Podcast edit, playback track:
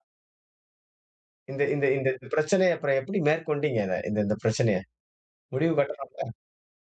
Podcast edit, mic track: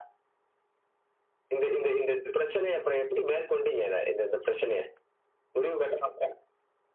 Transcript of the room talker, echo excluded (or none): none